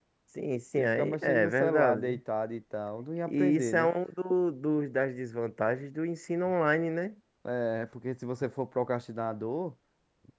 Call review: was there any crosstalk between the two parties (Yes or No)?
Yes